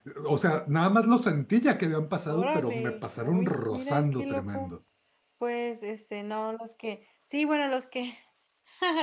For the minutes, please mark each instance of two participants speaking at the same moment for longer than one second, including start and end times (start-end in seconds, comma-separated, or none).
2.3-4.7